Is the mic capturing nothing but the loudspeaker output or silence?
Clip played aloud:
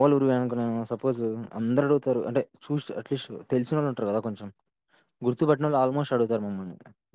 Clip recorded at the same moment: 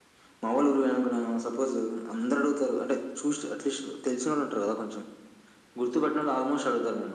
Yes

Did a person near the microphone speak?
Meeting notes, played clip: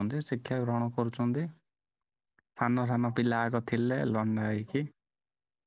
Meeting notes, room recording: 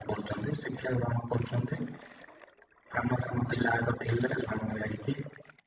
No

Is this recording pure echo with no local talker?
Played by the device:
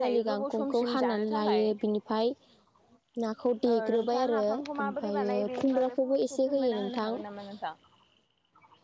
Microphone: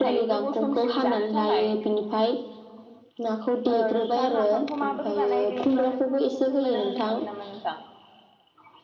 Yes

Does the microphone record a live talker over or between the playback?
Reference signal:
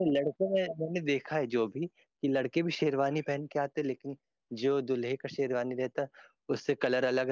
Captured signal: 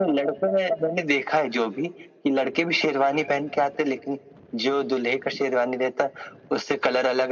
No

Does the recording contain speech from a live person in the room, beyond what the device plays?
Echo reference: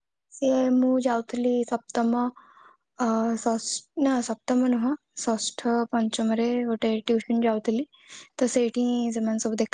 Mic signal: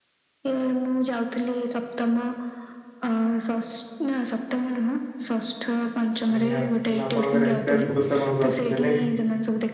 Yes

